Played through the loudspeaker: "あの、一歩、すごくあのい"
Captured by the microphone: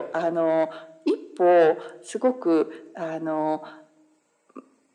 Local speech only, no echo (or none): none